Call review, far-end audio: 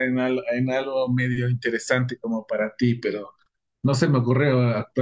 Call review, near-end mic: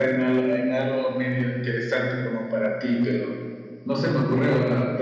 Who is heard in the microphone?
echo only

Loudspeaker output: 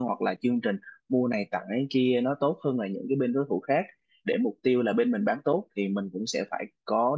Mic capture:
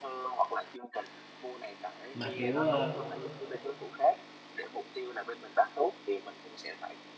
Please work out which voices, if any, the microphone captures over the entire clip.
both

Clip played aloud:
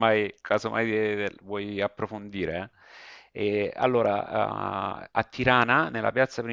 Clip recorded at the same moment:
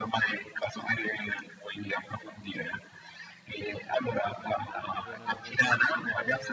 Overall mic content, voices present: both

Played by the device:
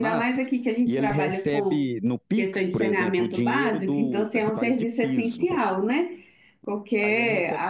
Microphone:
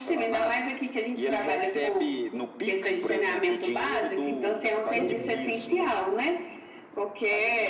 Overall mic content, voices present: both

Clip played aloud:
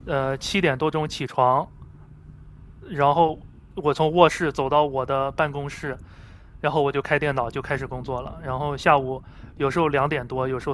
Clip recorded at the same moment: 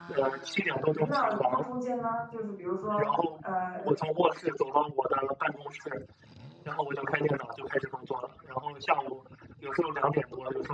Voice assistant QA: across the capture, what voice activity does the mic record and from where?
both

